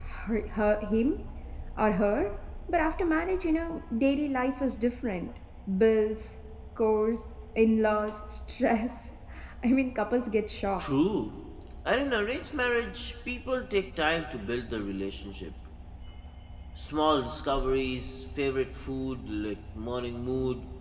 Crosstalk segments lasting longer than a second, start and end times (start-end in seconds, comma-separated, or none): none